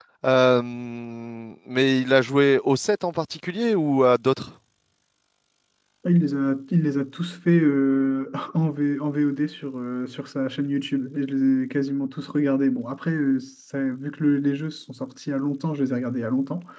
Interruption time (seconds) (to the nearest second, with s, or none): none